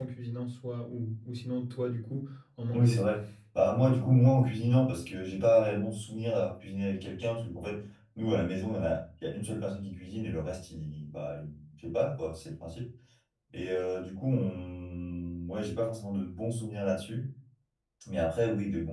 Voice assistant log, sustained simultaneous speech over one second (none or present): none